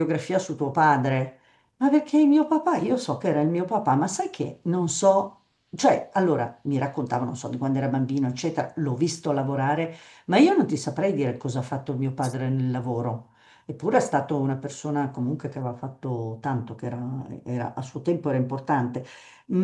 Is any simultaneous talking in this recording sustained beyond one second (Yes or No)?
No